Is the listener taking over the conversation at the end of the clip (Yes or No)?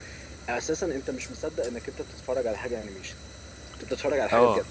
Yes